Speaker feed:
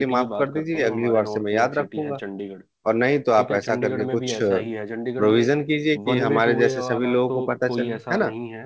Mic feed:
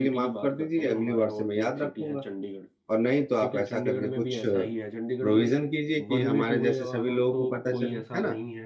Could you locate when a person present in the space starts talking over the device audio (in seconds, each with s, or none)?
none